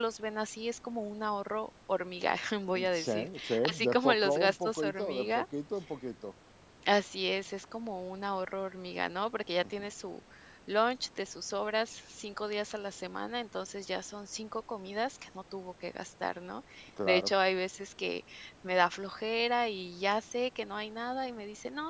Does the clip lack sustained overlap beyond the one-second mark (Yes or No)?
No